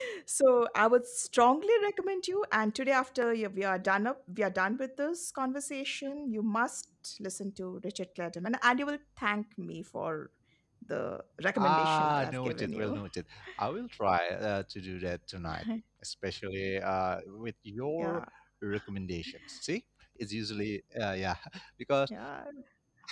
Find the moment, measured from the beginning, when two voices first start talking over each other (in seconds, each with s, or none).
11.6 s